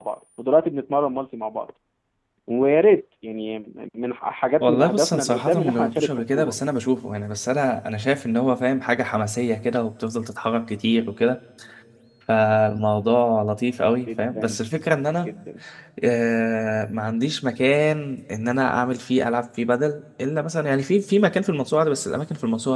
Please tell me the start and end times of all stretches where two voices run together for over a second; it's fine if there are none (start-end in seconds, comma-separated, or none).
4.6-6.5